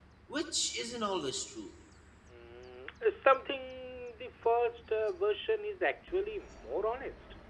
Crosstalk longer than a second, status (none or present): none